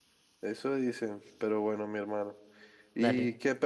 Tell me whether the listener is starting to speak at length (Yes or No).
No